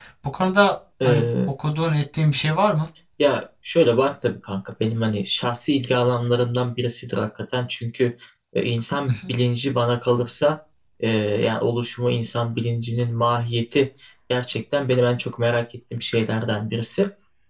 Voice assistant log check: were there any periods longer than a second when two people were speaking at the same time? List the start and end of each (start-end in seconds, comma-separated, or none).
none